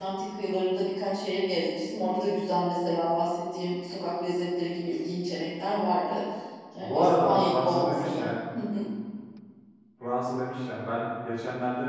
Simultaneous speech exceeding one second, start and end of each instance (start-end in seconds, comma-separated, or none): 6.8-8.3